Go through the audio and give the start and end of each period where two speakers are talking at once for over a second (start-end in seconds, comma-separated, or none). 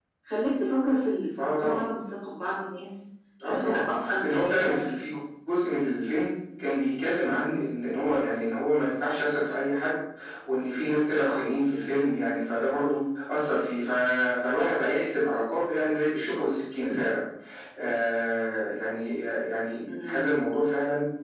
3.4-4.7